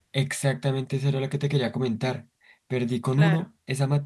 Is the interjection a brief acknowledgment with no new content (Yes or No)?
Yes